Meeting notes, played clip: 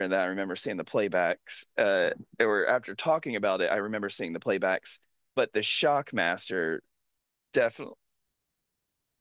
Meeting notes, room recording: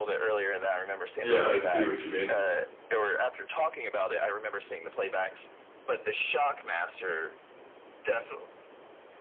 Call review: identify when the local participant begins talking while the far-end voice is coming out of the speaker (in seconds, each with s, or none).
1.2 s